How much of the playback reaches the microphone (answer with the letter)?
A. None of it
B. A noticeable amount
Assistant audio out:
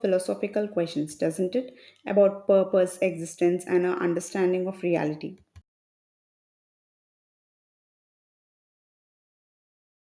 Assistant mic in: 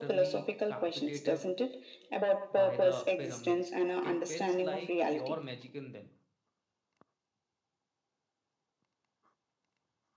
B